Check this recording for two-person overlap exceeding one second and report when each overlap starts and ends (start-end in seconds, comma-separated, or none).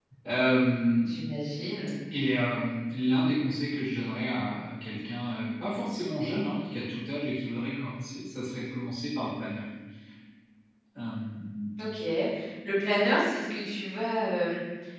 none